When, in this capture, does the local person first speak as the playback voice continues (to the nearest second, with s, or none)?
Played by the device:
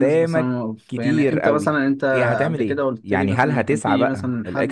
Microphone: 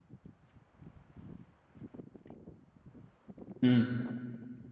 4 s